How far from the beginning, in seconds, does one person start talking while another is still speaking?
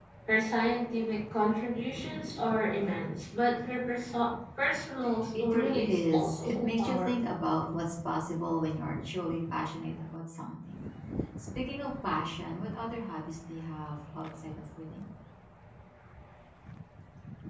5.3 s

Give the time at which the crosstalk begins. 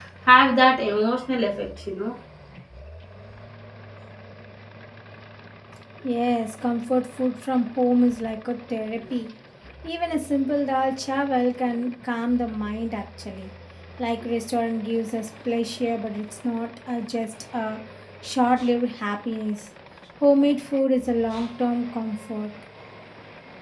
none

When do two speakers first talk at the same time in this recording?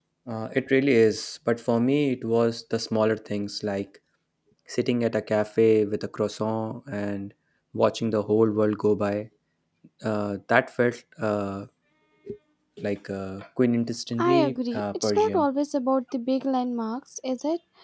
14.2 s

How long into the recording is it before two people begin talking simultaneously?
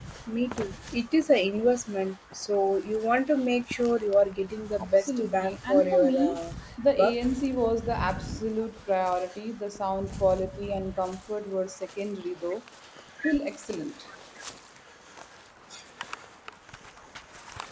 4.8 s

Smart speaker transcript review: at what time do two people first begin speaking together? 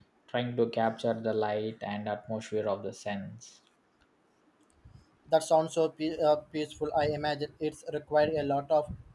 none

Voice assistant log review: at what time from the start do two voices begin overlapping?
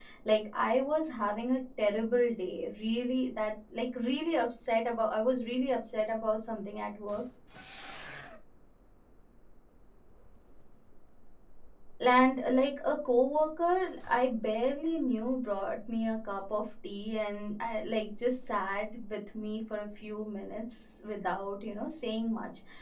none

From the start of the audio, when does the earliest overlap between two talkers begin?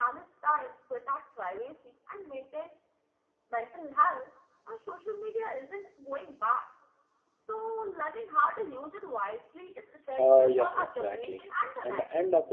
10.2 s

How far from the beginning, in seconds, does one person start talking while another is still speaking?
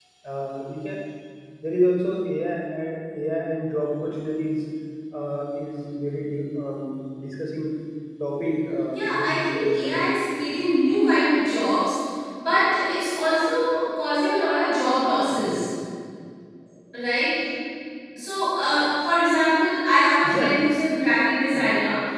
8.9 s

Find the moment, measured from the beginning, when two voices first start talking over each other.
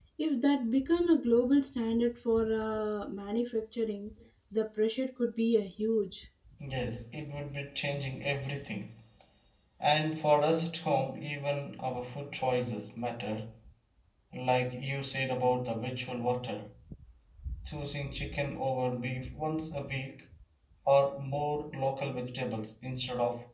none

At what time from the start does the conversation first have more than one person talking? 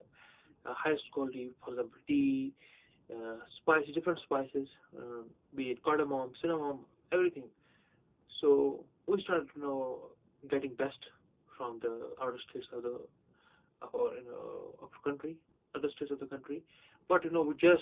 none

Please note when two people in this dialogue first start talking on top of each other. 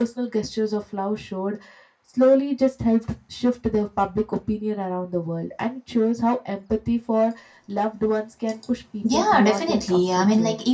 9.0 s

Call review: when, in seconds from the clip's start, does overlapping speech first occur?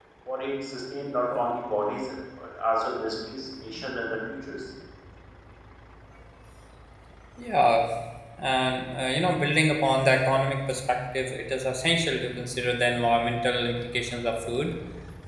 none

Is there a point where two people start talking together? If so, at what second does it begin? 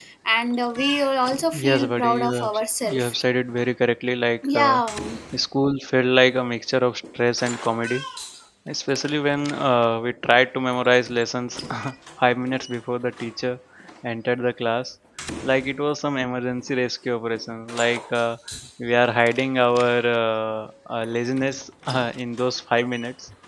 1.5 s

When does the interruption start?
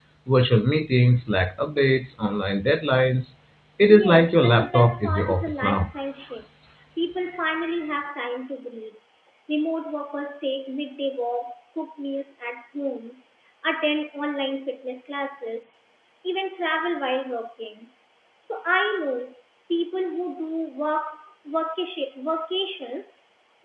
3.9 s

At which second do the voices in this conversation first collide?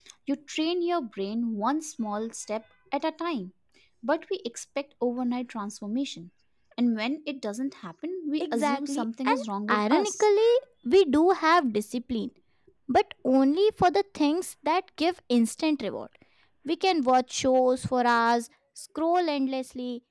8.4 s

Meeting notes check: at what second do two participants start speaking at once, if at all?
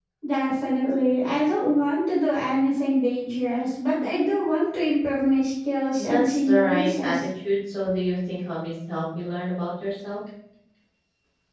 6.0 s

